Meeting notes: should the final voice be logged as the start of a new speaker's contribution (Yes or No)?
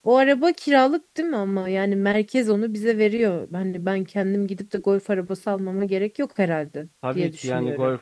Yes